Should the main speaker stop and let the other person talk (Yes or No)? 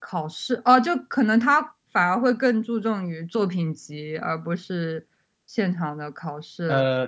Yes